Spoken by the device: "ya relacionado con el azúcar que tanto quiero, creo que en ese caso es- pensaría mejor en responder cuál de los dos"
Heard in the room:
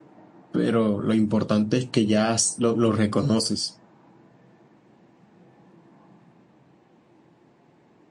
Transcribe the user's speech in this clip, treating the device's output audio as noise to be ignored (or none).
Pero lo importante es que ya s- lo, lo reconoces.